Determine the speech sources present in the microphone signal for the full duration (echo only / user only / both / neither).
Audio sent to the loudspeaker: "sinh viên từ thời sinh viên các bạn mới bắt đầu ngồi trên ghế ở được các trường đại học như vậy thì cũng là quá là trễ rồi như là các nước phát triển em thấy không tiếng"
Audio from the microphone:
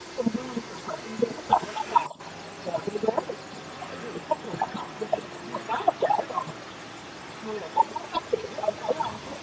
echo only